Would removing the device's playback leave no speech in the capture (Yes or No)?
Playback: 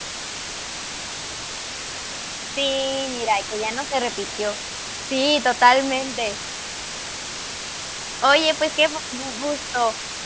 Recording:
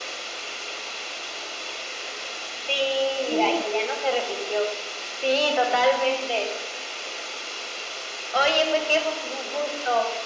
No